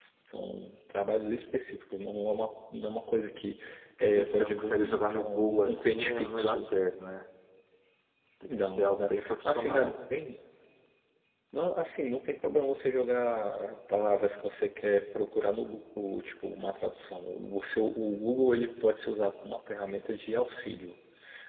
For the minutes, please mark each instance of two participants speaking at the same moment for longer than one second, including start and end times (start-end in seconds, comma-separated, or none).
4.0-6.7, 8.5-9.9